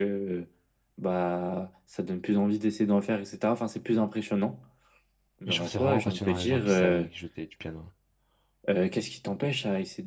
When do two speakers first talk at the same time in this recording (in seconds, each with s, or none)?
5.5 s